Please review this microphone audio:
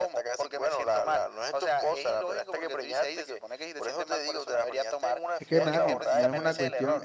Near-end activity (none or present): present